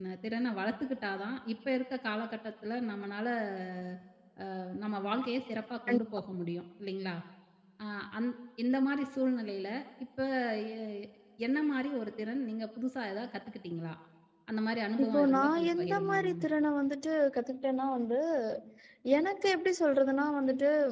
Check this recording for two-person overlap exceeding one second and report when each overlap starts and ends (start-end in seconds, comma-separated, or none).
15.0-16.4